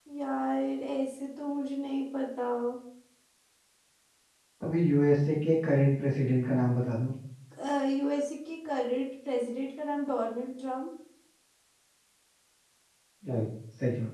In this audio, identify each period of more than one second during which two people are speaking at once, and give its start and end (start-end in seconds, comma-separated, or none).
none